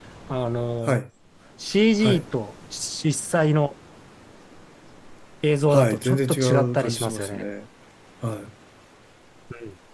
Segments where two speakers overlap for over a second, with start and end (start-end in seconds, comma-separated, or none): 5.7-7.4